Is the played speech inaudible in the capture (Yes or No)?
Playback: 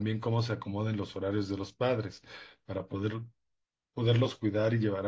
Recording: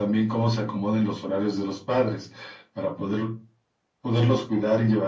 No